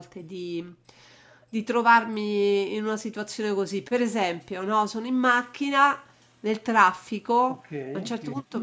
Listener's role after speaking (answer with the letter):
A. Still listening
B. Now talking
A